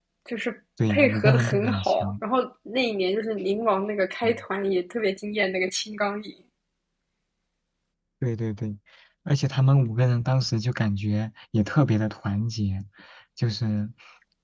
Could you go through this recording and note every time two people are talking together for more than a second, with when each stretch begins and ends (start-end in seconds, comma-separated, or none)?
0.9-2.1